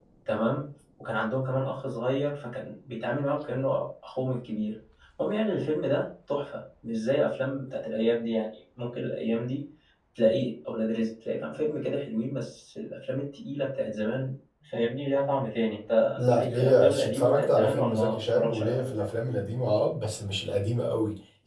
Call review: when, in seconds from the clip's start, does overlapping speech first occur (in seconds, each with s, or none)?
16.2 s